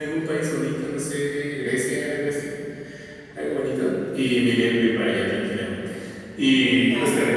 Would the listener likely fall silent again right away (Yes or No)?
Yes